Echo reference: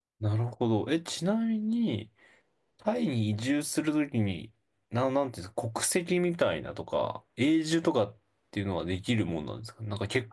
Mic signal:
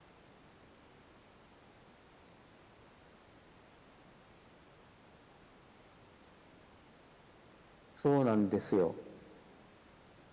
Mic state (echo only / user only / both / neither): user only